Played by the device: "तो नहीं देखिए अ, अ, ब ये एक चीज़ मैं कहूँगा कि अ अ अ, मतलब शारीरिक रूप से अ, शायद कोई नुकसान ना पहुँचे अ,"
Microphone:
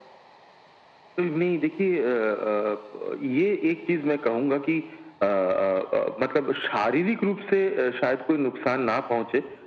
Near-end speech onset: none

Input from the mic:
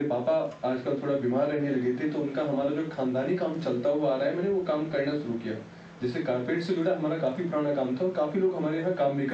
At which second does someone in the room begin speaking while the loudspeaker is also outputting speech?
none

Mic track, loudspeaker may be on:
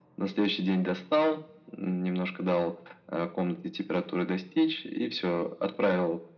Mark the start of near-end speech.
none

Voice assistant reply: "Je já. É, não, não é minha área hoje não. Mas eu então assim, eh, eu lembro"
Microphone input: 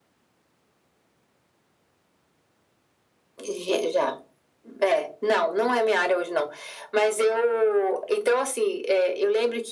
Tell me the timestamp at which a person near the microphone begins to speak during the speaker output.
none

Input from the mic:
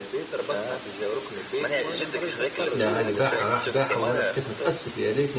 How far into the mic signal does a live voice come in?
3 s

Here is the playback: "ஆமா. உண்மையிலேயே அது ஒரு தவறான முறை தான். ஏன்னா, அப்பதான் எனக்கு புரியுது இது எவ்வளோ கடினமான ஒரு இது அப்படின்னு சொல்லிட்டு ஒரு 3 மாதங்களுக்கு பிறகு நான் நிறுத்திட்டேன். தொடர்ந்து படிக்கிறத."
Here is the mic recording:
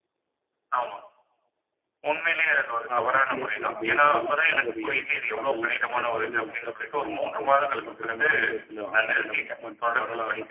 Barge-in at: 3 s

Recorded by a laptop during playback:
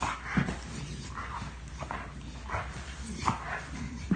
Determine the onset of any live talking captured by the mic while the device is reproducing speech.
none

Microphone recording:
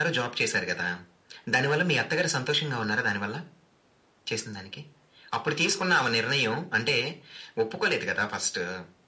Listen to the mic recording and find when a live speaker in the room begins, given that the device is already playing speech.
none

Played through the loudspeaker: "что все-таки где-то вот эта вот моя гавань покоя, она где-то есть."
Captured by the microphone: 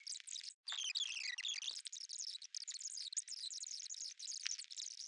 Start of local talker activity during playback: none

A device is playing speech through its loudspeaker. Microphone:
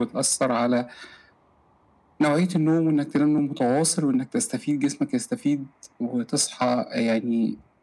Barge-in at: none

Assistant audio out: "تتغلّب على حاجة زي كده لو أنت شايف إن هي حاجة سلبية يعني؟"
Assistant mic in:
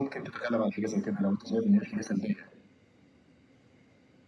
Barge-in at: none

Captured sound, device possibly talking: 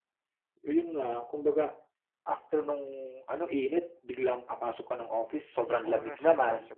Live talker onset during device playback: 6 s

